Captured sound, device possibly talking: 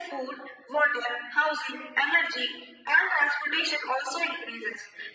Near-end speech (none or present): none